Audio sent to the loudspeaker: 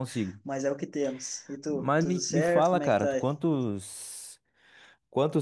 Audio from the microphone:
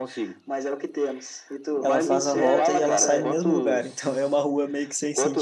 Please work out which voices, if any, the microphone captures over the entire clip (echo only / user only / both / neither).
both